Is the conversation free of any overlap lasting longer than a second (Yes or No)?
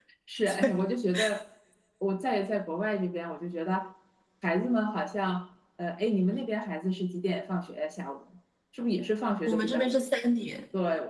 Yes